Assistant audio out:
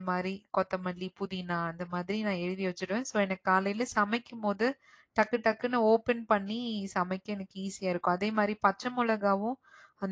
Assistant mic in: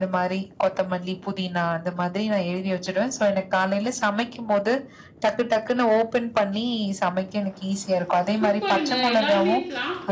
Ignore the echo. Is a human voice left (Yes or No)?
Yes